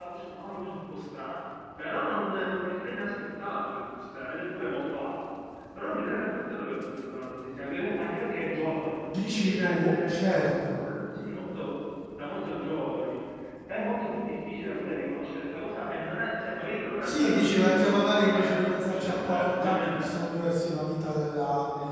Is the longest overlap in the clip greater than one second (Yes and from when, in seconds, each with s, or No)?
Yes, from 9.3 s